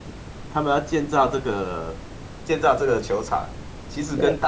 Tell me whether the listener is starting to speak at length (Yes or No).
No